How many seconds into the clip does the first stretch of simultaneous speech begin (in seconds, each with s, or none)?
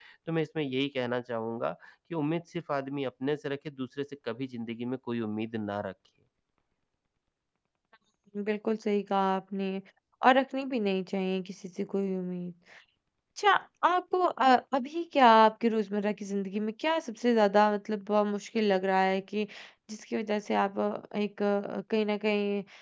none